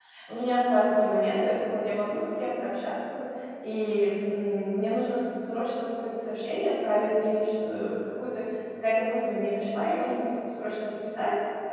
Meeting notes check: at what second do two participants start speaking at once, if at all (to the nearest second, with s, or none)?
none